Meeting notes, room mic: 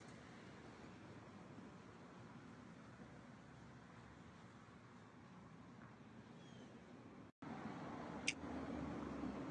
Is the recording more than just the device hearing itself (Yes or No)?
No